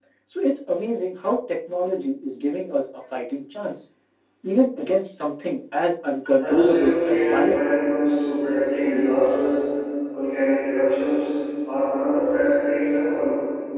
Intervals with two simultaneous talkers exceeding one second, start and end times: 6.4-7.6

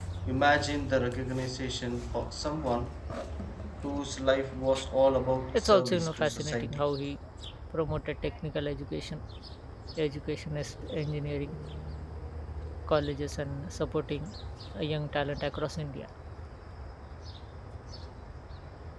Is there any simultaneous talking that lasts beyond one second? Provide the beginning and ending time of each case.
5.5-6.9

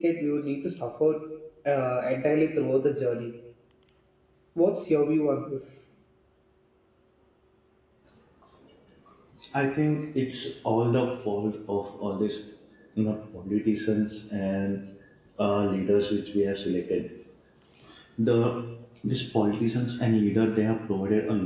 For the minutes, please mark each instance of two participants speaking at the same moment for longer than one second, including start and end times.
none

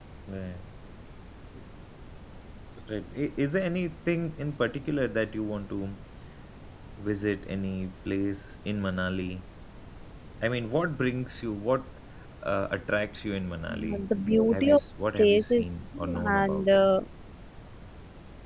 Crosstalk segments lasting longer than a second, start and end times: 15.2-16.7

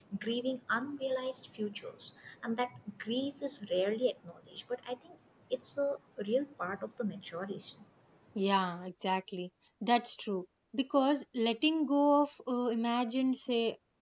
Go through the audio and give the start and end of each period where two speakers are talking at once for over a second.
none

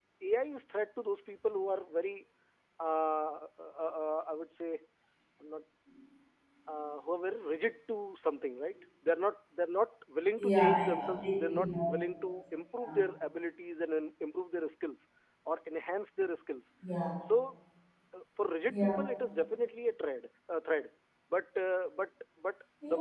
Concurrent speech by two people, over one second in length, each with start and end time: 10.4-12.3

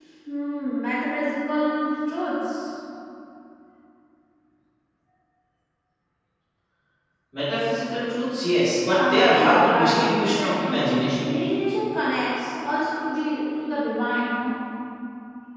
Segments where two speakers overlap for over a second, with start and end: 8.8-11.3

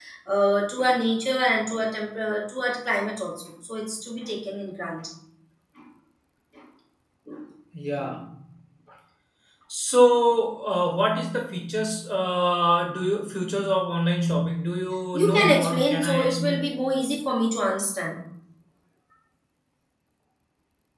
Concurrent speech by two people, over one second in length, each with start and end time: 15.1-16.6

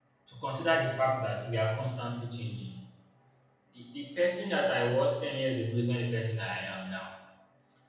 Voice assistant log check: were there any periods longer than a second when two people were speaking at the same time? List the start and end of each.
none

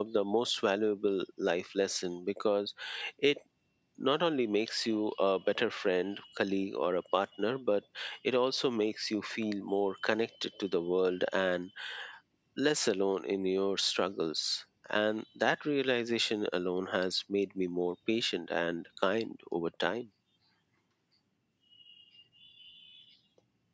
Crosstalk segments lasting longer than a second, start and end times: none

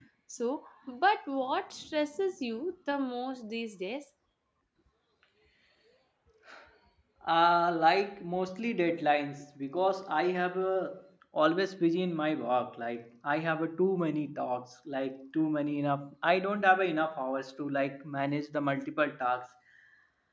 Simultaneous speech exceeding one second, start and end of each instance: none

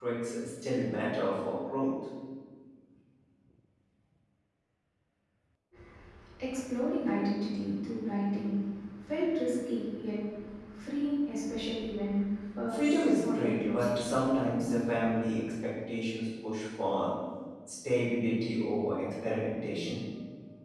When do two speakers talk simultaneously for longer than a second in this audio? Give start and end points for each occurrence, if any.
12.7-14.0

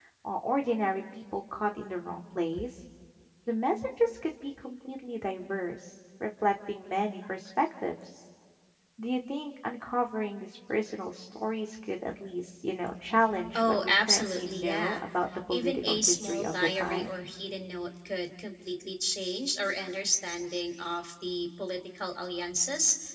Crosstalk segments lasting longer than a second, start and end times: 13.5-15.0, 15.5-17.1

